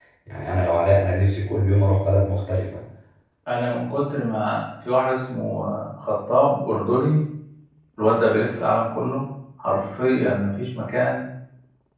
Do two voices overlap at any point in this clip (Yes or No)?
No